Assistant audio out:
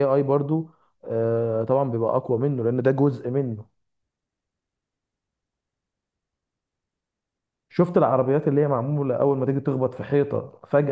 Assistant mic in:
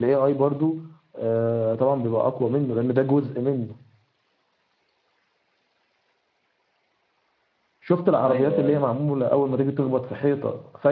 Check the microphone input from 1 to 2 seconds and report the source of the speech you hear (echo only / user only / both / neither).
echo only